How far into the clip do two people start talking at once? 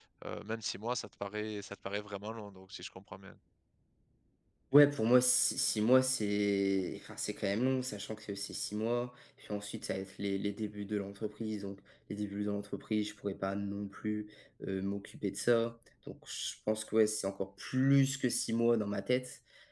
none

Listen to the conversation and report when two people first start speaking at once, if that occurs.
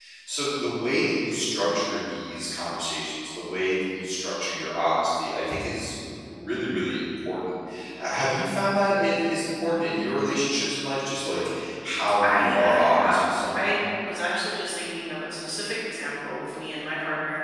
12.2 s

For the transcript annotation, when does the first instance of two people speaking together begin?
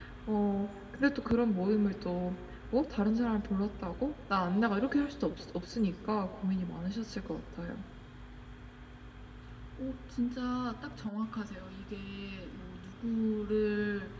none

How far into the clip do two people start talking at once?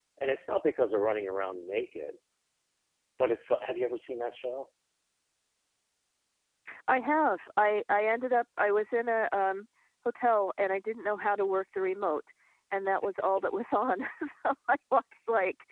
none

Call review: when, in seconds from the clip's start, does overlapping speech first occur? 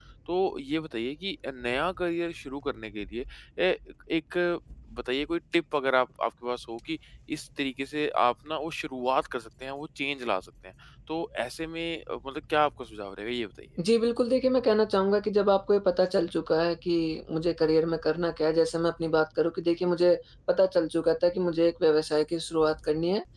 none

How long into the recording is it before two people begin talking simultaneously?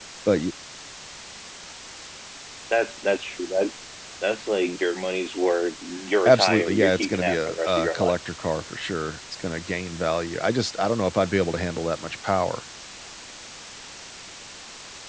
6.2 s

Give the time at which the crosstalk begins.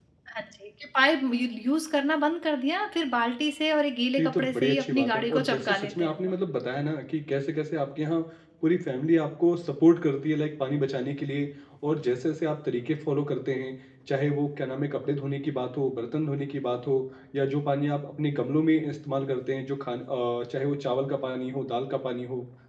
4.2 s

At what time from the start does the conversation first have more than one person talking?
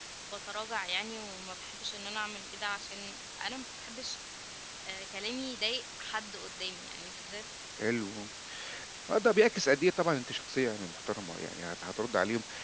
none

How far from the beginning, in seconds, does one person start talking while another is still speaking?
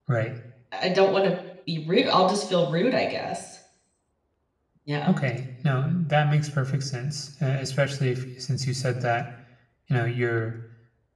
none

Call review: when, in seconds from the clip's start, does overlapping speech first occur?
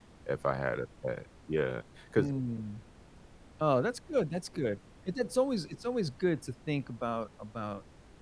none

